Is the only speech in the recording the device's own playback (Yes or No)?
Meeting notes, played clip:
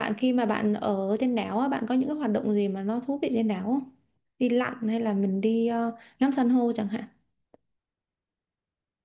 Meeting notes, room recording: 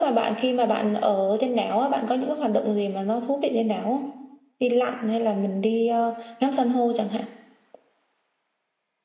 Yes